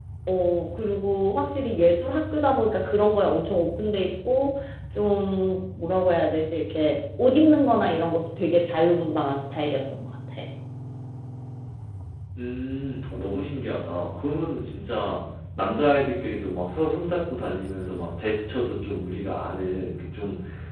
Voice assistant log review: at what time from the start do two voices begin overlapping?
none

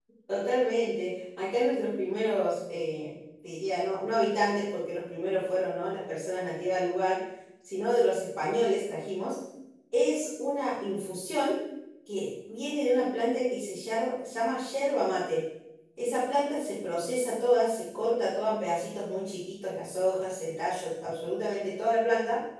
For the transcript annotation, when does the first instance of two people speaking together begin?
none

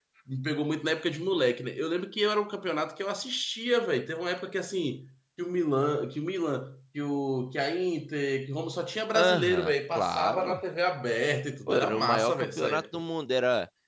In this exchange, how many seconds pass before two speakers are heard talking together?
9 s

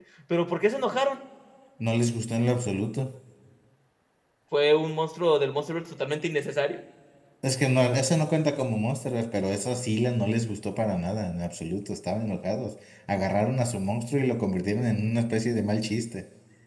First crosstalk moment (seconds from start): none

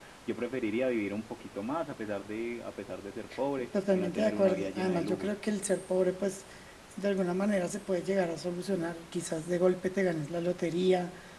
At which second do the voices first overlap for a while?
4 s

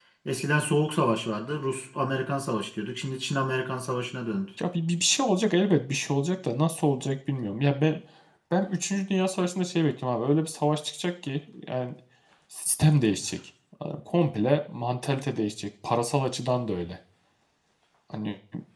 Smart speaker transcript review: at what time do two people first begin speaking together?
none

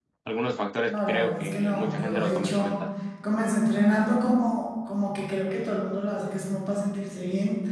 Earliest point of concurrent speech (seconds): 1 s

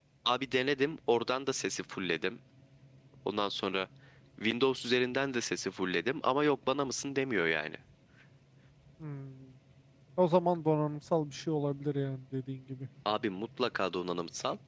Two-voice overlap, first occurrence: none

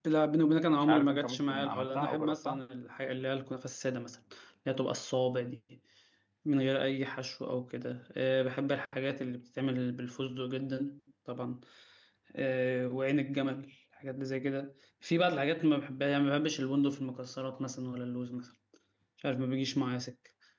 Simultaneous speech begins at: 1 s

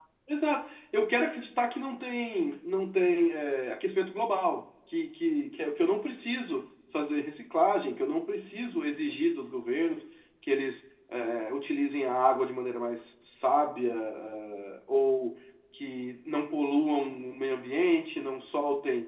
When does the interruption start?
none

